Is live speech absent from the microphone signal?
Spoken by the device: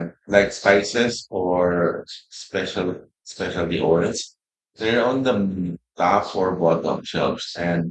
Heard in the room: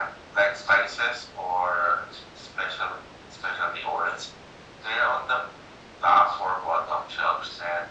Yes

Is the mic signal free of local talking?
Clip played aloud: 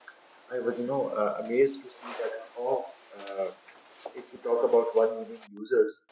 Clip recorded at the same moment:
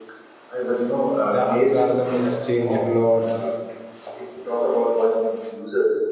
No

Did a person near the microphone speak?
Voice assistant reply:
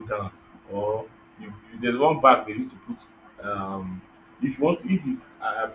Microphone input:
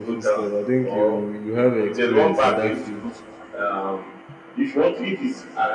Yes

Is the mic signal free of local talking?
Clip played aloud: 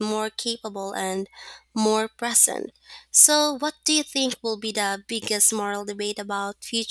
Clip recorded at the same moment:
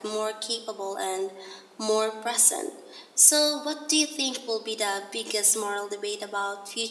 Yes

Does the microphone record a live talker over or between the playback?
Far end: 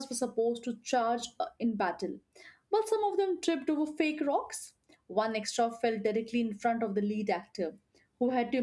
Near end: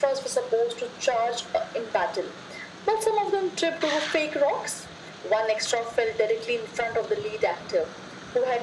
No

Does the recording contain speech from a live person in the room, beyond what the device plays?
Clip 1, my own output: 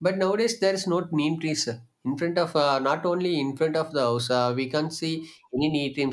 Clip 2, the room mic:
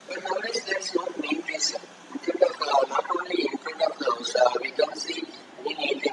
No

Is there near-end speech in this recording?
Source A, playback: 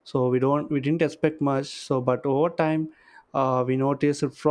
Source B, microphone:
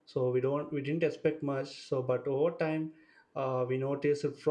No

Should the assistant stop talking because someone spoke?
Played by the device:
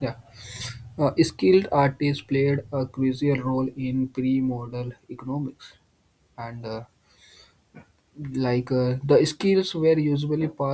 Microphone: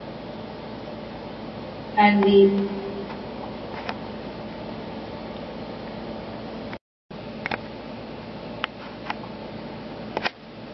Yes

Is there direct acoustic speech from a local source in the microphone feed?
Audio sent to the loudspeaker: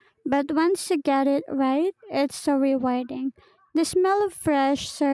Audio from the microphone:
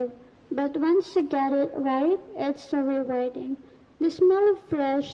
No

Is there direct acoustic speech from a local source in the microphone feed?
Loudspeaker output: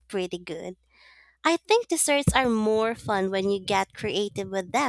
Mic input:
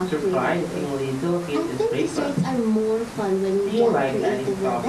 Yes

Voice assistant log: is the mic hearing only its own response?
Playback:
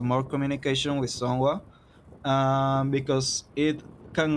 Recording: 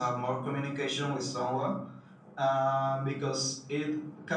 Yes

